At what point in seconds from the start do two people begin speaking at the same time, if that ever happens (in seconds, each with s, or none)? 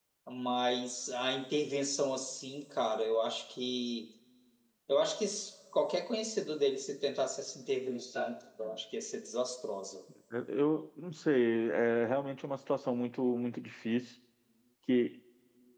none